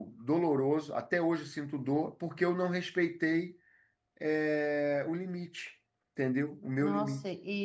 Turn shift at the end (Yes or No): Yes